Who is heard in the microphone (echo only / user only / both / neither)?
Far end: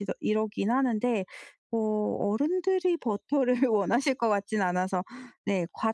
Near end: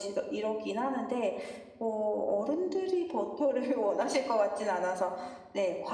echo only